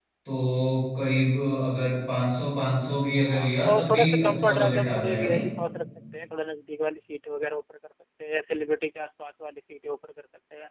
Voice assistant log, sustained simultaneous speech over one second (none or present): present